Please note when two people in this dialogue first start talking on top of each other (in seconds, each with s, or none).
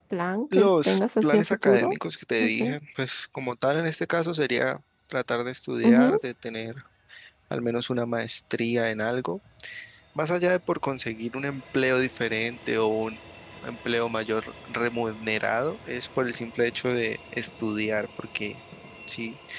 0.5 s